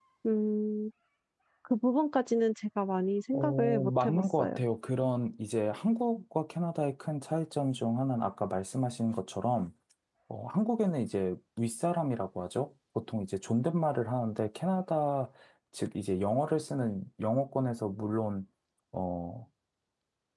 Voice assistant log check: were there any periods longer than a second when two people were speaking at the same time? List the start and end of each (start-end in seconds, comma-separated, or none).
3.3-4.6